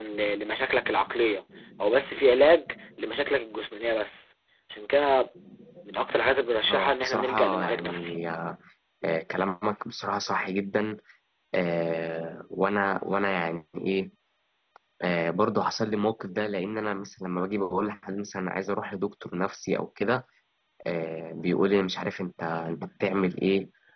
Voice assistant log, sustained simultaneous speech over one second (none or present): present